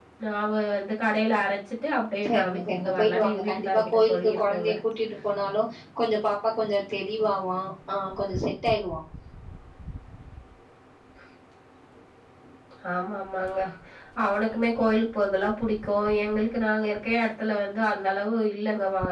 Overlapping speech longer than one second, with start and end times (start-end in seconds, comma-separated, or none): 2.3-4.7